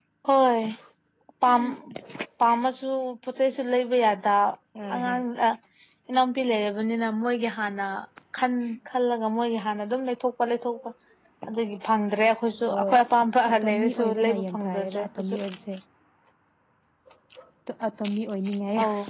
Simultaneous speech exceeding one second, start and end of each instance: 13.5-14.9

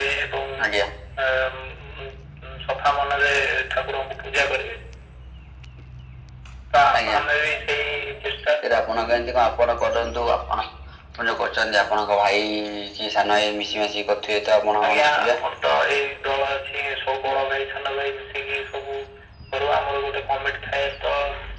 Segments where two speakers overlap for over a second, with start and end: none

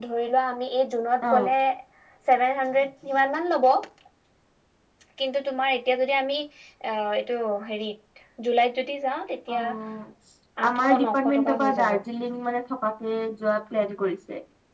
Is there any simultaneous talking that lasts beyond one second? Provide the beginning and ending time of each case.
10.7-12.0

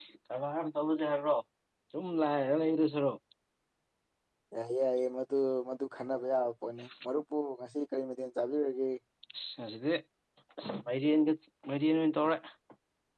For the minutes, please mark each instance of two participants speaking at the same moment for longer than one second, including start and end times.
none

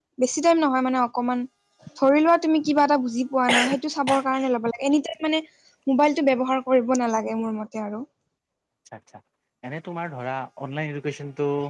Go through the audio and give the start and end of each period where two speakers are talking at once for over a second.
none

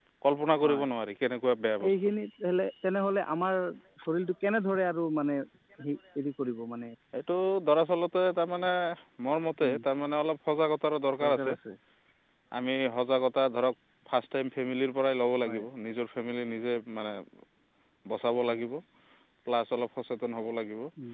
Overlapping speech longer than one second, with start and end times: none

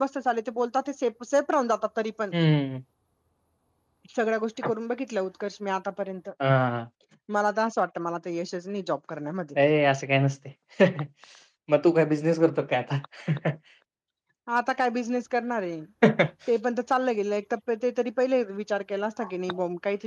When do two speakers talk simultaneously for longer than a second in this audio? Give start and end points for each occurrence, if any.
none

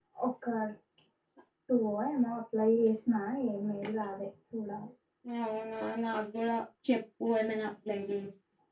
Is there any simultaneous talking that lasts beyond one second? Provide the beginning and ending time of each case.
none

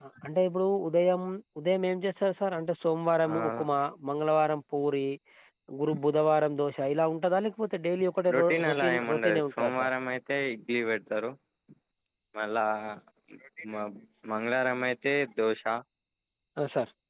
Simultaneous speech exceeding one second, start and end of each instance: 8.3-9.9

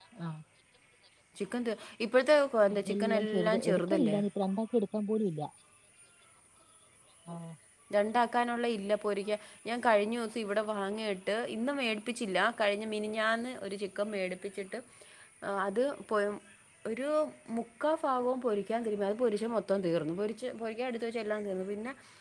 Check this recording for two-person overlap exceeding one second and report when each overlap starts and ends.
2.7-4.2

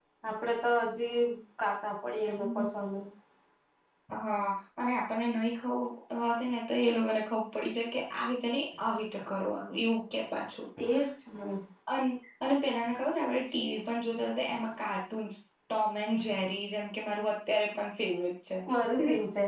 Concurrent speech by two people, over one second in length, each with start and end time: none

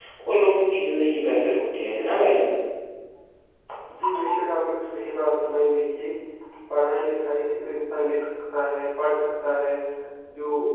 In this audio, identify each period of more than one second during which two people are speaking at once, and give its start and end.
none

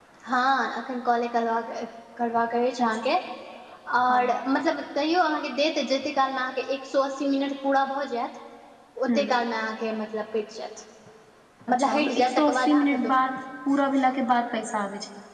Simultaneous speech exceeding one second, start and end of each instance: 11.9-13.1

